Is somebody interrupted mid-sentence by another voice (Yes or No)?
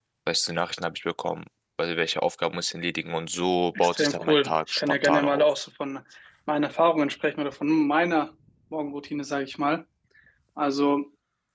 Yes